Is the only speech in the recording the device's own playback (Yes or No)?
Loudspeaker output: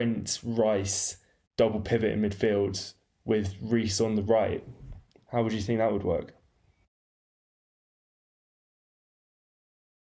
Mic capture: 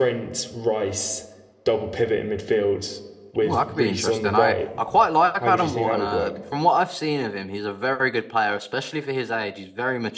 No